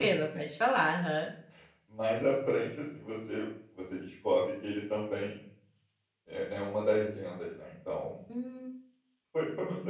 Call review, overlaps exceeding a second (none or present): none